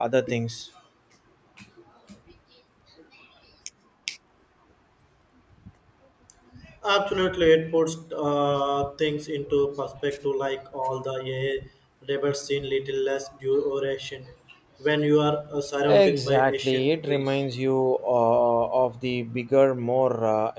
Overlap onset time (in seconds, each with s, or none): 15.8 s